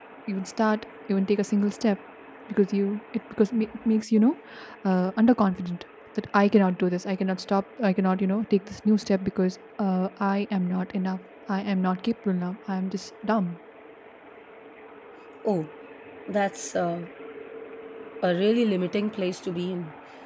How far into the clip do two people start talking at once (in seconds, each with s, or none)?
none